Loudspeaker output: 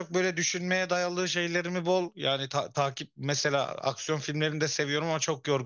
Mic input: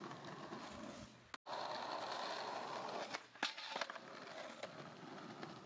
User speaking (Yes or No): No